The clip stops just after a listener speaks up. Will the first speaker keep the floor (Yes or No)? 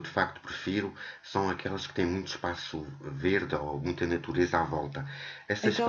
Yes